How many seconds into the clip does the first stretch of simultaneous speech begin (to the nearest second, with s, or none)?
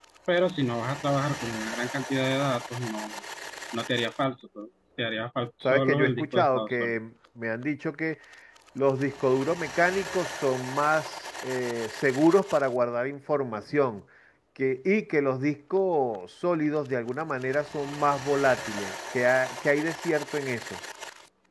6 s